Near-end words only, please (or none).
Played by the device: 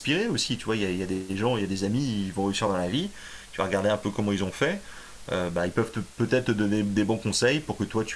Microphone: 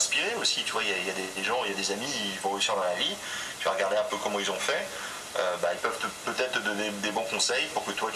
none